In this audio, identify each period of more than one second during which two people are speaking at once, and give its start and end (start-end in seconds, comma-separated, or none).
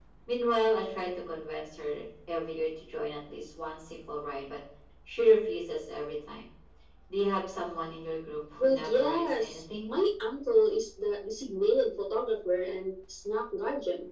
8.6-9.9